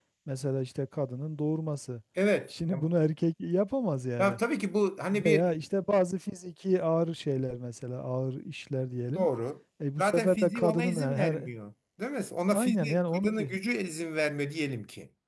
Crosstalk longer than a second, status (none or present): present